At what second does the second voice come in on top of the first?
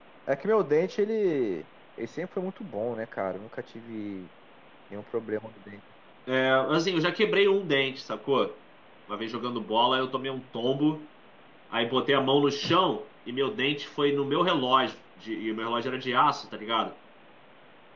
none

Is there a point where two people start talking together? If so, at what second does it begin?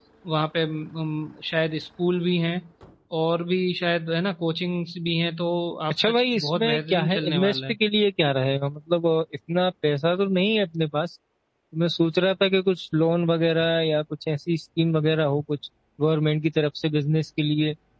5.9 s

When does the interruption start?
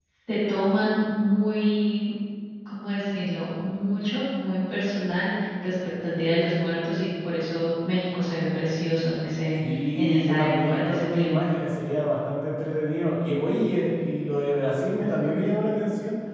9.6 s

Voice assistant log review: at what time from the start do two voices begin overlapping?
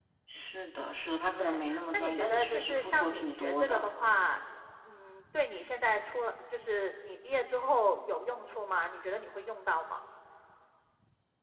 1.4 s

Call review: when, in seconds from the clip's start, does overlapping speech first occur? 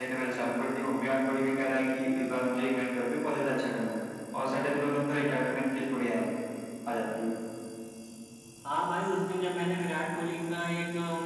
none

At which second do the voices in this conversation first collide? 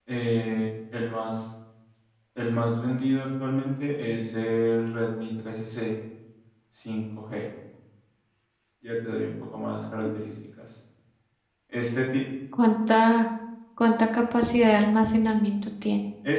none

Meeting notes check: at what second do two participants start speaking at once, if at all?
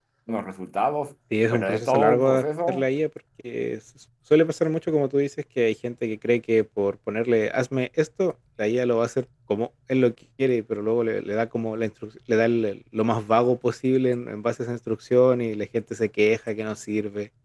1.3 s

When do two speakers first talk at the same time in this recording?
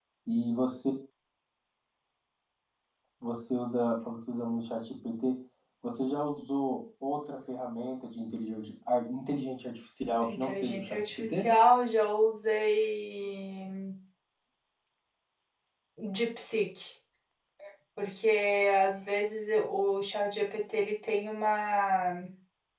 10.2 s

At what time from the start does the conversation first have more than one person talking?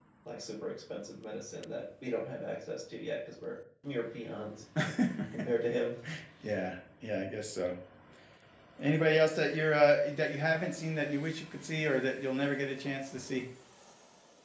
none

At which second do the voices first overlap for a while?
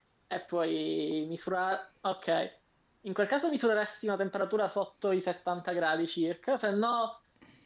none

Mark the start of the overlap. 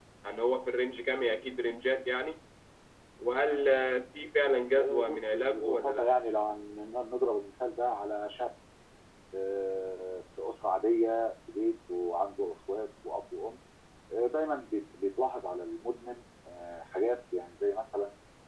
4.8 s

